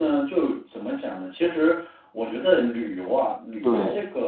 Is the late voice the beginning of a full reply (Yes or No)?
No